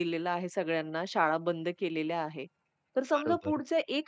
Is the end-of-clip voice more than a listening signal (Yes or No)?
No